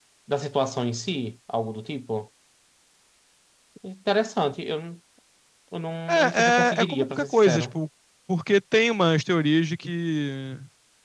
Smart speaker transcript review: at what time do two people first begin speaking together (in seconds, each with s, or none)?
6.1 s